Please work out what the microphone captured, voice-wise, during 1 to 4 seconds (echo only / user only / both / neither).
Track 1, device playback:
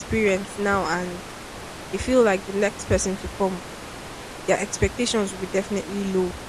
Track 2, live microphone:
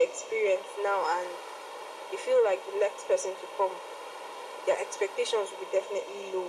echo only